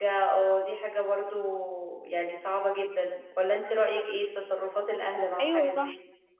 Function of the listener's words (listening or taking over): taking over